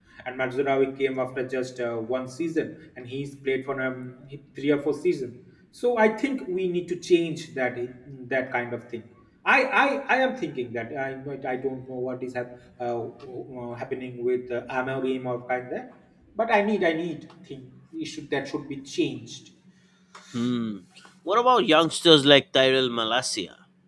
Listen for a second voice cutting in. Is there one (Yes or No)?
No